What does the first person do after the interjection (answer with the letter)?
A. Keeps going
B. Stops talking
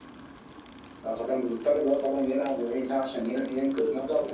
B